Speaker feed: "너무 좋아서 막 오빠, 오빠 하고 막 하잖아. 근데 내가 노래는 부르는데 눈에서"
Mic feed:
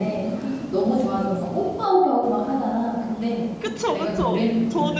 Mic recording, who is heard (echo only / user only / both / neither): both